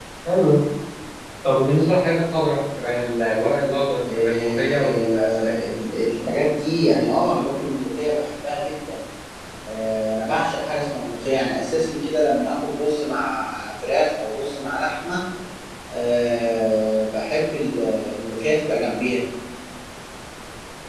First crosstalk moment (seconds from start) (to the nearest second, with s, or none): 4 s